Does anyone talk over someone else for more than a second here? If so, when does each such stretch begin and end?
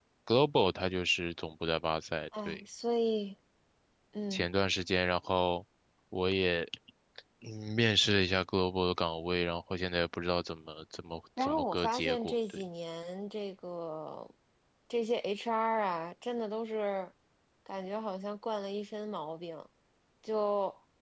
11.4-12.6

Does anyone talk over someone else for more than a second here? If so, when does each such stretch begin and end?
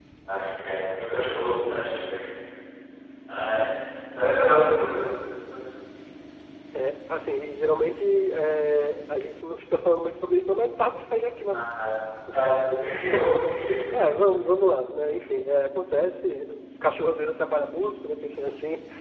none

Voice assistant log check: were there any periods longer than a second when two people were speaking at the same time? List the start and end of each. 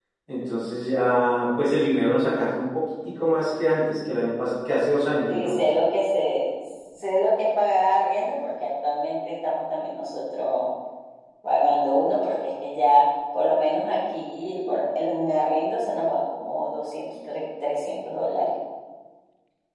none

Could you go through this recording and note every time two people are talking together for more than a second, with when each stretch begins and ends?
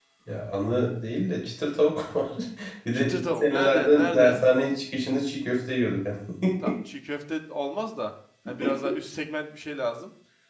2.9-4.4

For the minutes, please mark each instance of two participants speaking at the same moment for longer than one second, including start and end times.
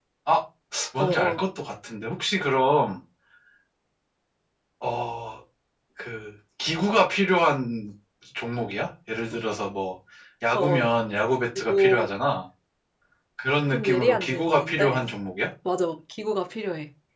13.7-15.0

